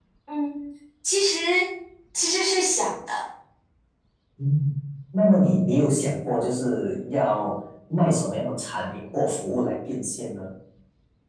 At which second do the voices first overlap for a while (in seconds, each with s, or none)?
none